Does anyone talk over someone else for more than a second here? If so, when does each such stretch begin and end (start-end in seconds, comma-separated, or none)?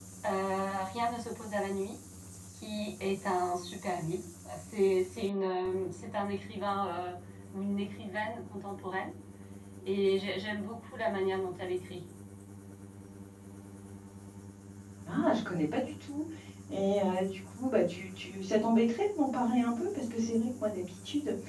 none